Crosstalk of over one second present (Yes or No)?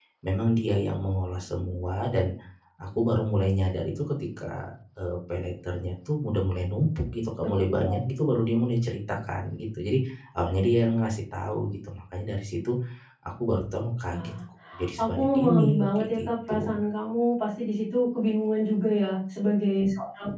Yes